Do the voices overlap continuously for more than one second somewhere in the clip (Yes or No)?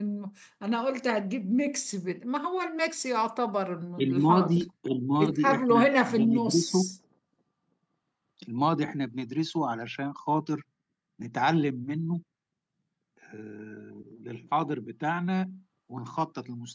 Yes